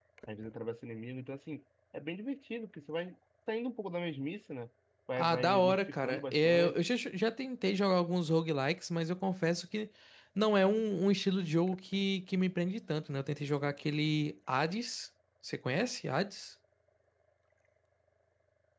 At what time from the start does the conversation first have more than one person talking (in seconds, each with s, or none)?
5.2 s